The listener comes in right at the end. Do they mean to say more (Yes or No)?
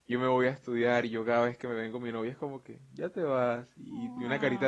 No